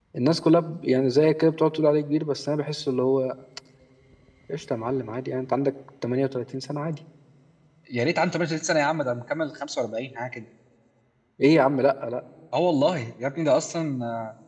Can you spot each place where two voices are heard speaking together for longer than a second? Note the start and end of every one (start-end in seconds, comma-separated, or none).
none